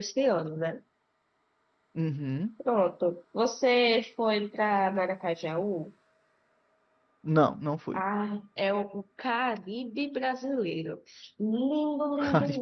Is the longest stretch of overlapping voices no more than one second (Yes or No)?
Yes